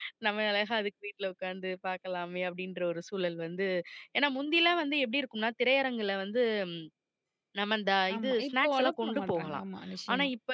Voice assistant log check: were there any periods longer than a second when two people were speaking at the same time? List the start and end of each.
8.1-9.6

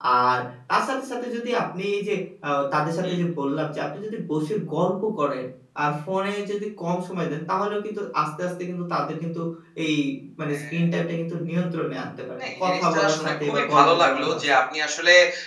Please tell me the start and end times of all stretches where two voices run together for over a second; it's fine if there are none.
12.4-14.4

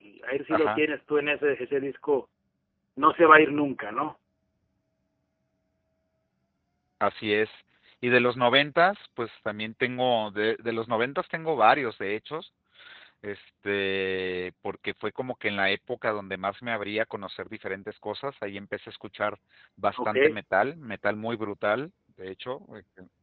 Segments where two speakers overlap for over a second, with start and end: none

